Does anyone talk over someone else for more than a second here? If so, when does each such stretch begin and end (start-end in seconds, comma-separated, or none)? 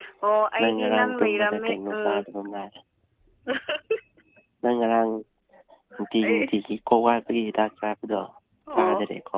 0.6-2.2